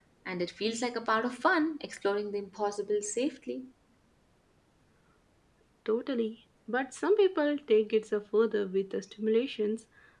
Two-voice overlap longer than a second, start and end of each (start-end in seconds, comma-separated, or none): none